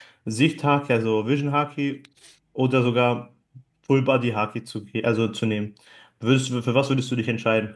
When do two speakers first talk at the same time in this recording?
none

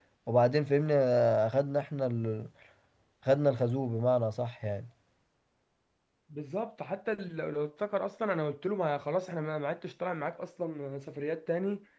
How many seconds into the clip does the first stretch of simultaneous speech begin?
none

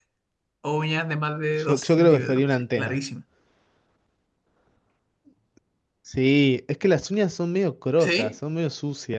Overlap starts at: 1.7 s

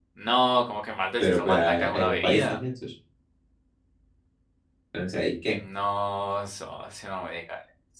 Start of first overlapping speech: 1.2 s

